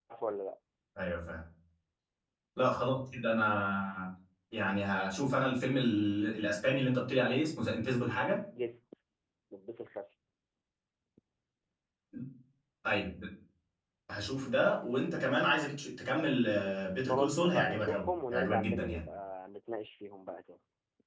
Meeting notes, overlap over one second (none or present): present